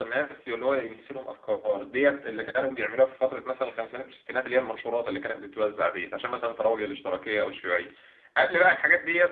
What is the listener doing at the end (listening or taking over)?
listening